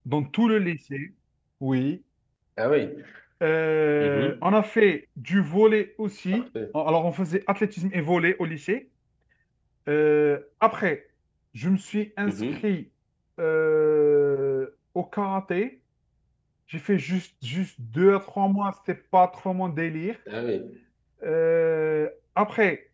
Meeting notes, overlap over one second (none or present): none